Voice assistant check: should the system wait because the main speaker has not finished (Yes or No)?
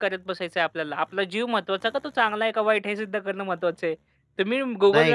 No